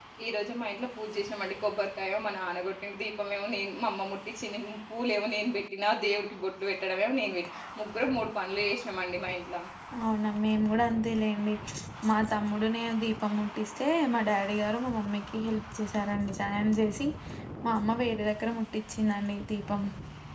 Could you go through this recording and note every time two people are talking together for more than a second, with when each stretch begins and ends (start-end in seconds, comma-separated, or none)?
none